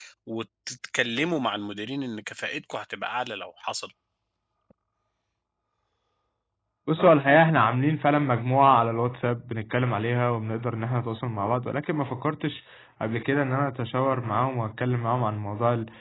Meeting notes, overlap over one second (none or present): none